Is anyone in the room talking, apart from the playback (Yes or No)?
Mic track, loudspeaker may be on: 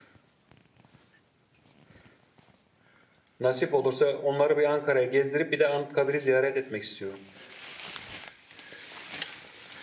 Yes